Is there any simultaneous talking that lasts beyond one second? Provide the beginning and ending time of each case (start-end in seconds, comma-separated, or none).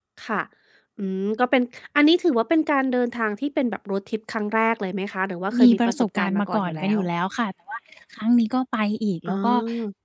5.6-7.0